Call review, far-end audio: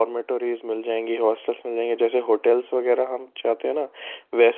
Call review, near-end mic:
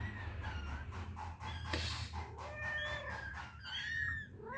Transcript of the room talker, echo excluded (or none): none